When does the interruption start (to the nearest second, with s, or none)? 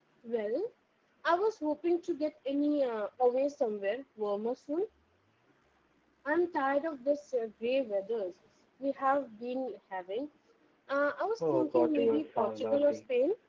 12 s